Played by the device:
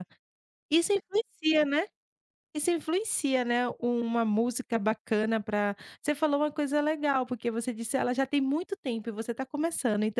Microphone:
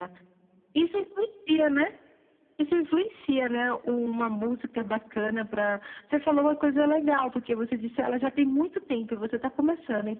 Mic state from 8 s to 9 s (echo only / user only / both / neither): echo only